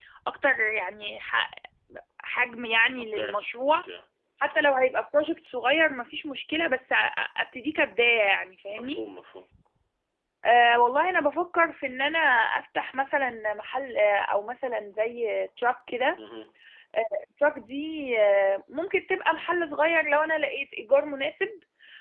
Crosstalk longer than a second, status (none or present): none